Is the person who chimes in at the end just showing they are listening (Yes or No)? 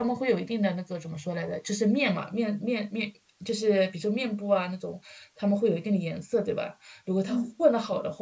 Yes